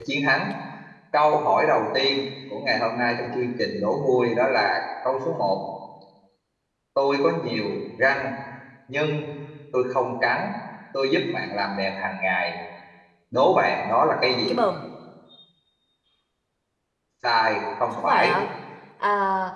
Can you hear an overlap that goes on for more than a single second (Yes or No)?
No